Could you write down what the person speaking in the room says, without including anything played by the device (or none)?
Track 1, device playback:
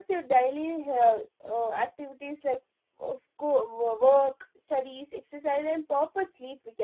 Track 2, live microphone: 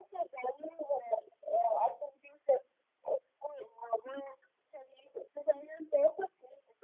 none